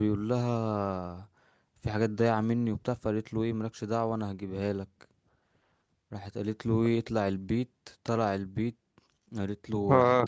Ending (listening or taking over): listening